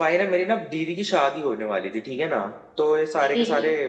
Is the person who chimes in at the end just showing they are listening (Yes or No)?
Yes